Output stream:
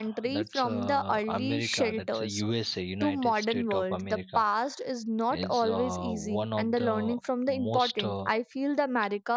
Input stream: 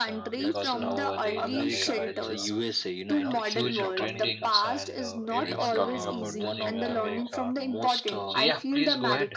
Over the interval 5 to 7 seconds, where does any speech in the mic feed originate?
both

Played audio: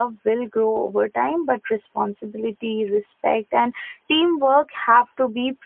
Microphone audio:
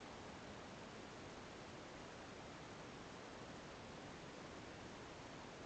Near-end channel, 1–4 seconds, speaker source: neither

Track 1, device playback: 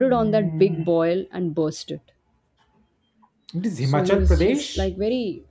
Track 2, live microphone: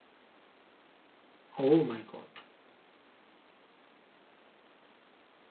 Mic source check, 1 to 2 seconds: user only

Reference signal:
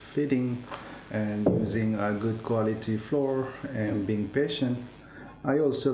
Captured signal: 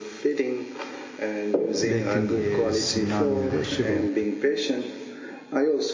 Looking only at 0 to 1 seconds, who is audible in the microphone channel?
echo only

